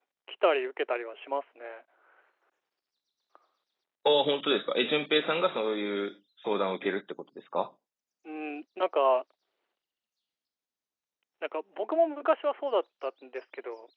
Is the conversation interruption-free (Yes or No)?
Yes